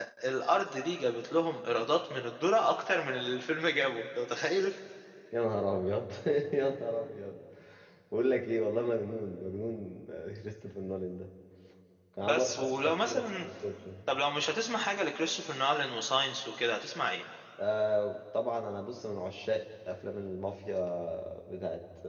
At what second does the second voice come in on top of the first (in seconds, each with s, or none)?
12.2 s